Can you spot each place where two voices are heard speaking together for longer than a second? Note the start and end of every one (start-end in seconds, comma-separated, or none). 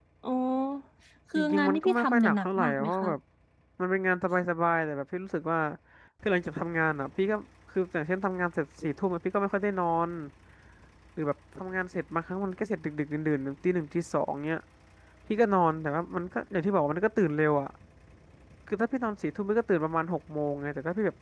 1.4-3.1